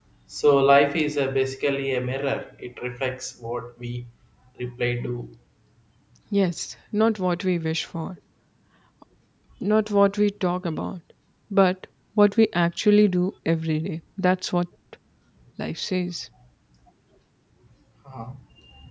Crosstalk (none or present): none